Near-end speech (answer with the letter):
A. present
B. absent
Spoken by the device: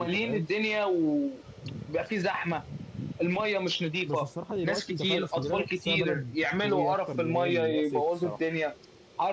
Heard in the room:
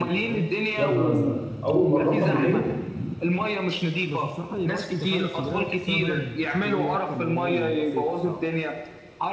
A